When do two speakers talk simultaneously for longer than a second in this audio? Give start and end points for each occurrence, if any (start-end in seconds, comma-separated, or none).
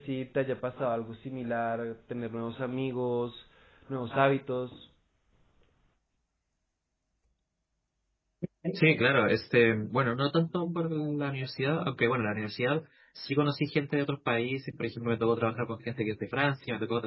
none